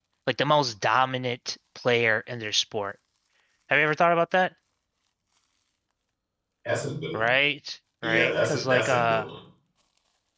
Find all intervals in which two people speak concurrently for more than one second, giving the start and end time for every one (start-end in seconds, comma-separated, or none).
8.0-9.3